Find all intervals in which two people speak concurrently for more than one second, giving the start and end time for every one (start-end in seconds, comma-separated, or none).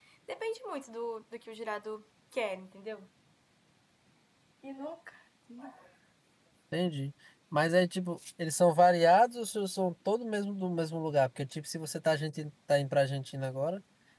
none